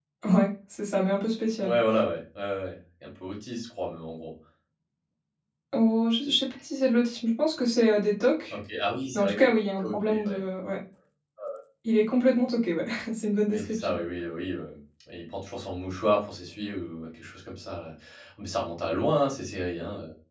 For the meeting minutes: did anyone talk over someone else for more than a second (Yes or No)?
No